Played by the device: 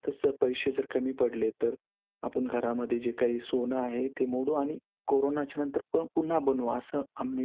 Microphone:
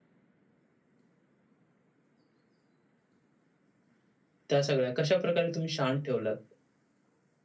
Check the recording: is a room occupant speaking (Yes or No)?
Yes